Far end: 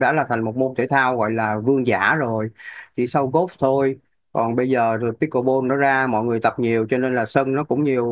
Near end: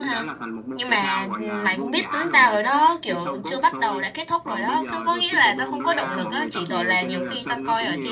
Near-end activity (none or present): present